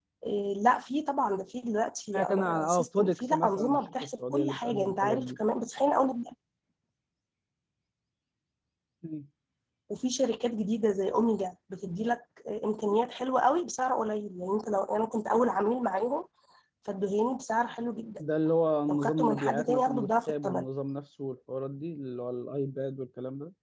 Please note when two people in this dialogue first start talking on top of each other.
2.1 s

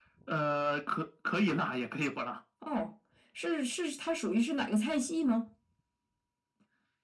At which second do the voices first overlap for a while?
none

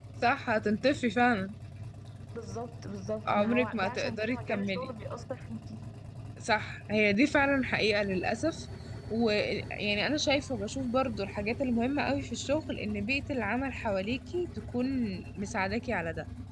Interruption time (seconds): 3.2 s

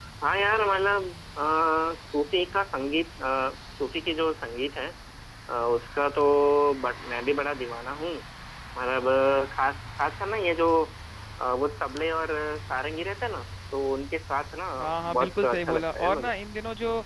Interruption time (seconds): 14.8 s

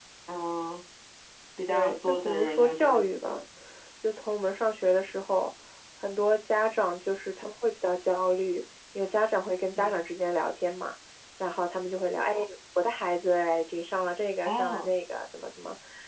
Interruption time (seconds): 1.7 s

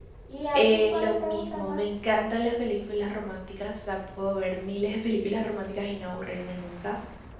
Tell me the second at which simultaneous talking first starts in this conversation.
0.5 s

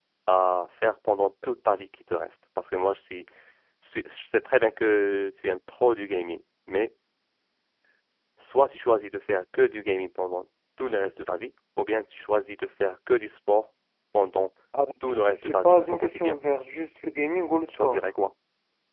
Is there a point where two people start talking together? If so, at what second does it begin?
15.0 s

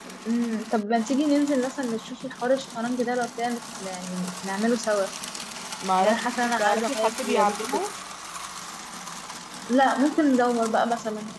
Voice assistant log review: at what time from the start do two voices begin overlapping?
6.0 s

